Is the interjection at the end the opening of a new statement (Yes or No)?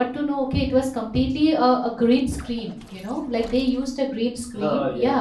No